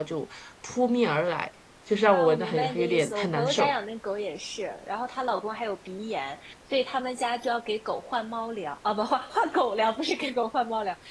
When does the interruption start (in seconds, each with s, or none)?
2.1 s